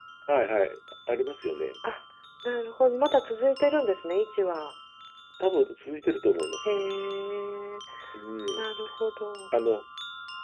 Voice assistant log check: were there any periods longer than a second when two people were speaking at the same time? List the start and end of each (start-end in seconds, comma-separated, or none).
none